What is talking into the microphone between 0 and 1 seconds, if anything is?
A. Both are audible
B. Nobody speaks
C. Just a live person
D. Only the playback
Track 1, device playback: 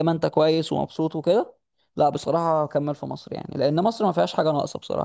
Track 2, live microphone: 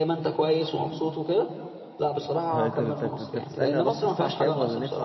D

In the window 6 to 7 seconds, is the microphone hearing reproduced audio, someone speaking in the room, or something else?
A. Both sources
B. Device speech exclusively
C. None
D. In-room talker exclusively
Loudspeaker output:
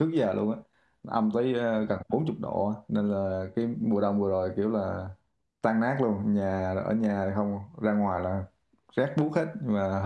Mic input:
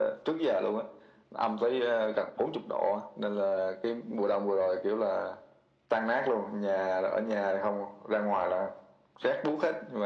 B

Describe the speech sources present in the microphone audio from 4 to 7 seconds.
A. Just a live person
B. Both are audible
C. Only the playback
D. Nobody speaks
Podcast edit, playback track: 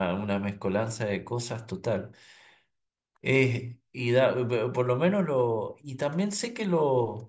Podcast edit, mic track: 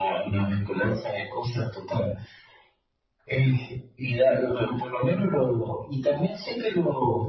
C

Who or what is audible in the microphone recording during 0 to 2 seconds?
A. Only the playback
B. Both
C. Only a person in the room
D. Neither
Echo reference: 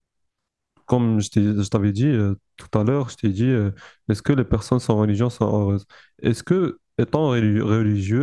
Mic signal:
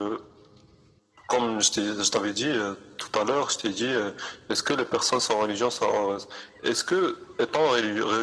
A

